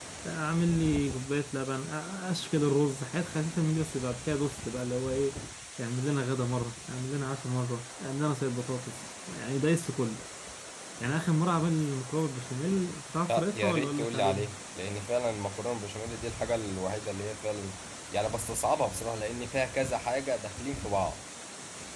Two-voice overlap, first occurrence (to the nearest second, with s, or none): 13 s